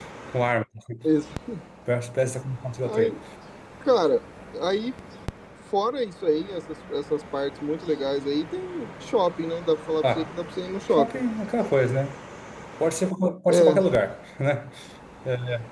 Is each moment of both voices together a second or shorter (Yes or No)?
Yes